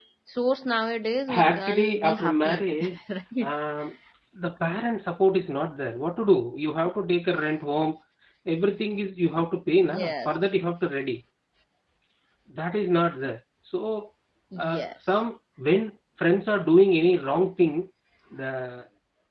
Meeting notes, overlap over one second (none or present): present